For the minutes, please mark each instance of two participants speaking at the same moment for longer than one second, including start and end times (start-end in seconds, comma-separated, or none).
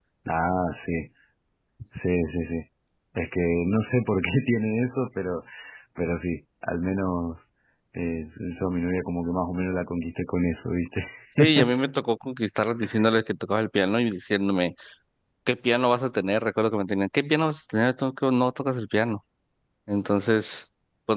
none